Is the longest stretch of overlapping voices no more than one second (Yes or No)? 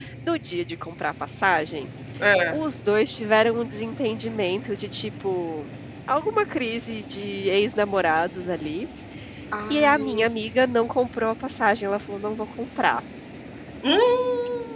Yes